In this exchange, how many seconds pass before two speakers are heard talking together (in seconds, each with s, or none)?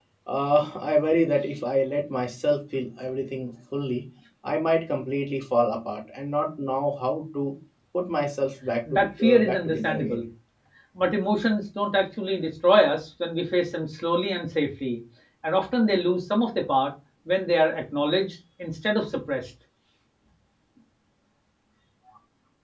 8.9 s